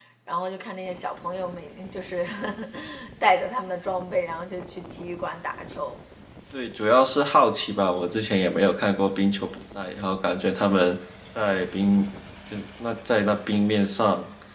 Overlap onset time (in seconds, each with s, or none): none